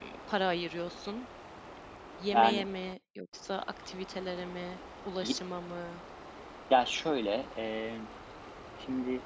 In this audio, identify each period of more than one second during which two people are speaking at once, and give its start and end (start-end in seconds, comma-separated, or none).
none